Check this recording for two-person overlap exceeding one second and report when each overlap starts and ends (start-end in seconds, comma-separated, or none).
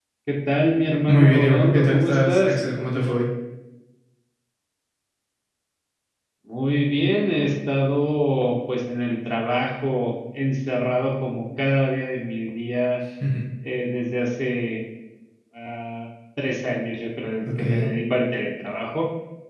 1.1-2.6